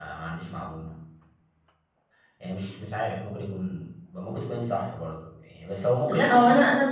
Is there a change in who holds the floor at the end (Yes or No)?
Yes